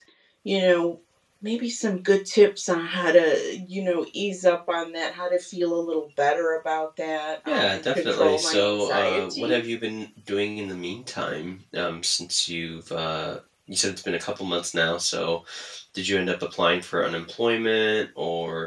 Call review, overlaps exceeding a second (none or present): present